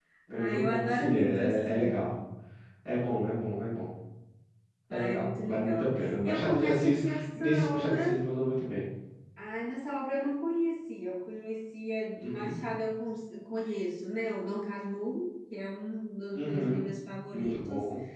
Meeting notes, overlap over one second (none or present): present